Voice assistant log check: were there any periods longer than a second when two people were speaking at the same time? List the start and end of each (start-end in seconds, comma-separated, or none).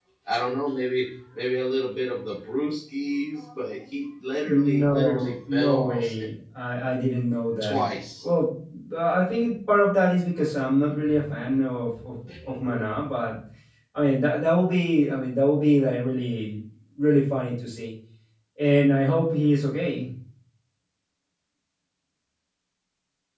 4.4-6.1